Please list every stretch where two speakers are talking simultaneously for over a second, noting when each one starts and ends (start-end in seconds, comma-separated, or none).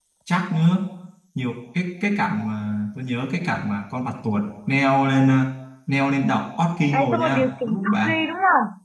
6.9-8.2